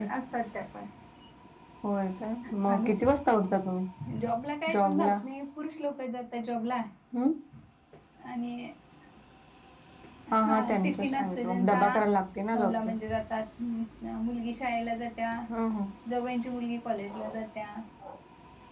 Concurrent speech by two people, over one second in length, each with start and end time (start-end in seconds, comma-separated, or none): 10.3-11.8